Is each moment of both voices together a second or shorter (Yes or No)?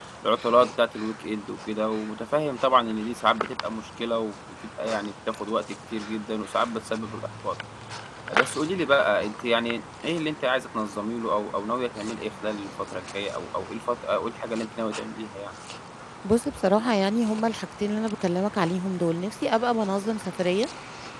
Yes